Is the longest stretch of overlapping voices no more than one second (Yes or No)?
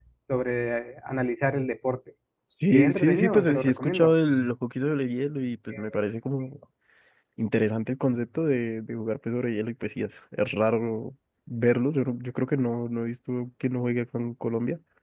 No